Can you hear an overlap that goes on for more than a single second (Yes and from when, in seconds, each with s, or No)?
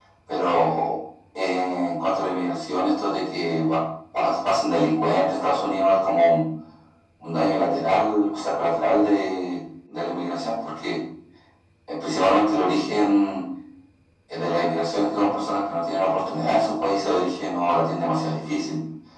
No